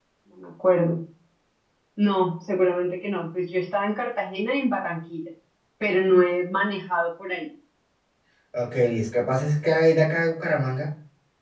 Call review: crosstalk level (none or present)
none